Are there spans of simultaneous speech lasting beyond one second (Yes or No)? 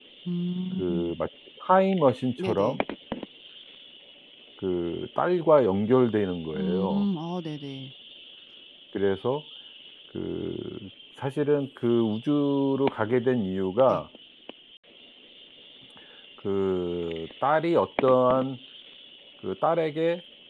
No